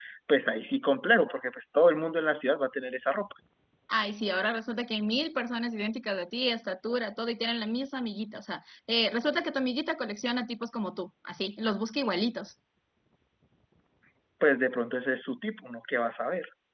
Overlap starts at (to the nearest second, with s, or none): none